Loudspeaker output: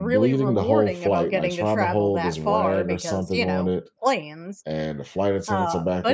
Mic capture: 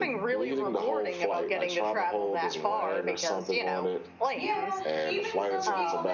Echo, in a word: present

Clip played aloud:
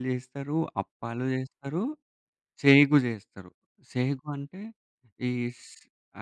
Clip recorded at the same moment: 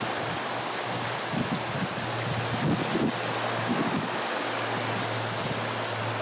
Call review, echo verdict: none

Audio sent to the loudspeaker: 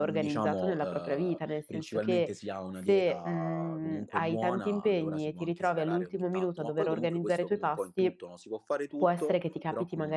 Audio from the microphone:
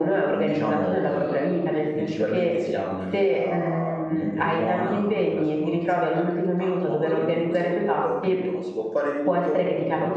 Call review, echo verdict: present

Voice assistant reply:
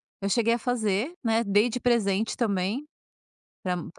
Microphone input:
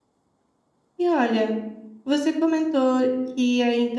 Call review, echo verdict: none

